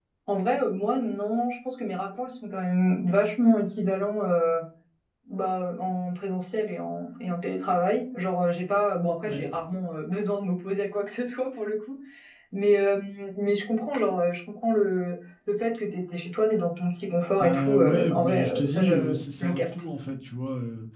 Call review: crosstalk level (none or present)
present